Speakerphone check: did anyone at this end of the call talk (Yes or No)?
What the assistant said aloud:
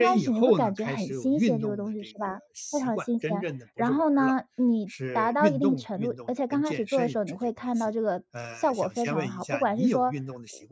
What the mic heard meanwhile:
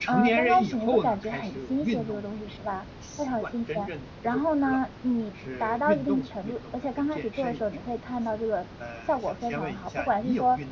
No